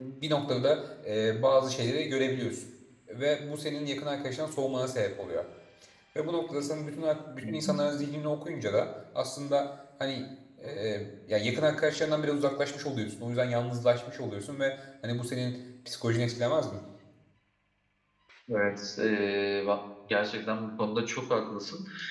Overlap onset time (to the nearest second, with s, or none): none